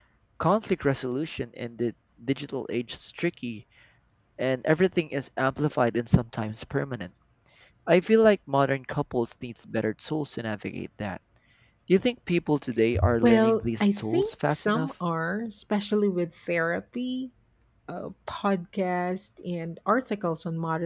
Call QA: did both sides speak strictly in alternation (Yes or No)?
No